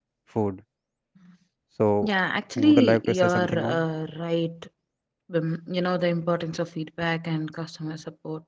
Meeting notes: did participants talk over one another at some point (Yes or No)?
Yes